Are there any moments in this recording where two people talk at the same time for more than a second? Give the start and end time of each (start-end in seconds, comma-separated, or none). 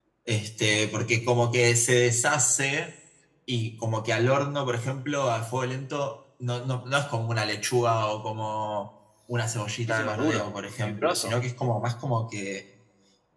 9.9-11.3